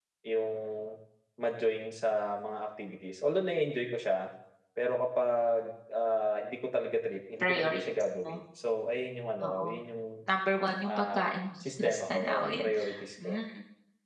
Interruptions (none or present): present